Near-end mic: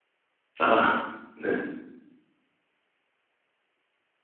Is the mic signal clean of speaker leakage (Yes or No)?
Yes